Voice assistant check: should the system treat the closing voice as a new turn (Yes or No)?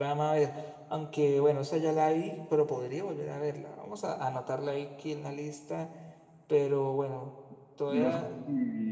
Yes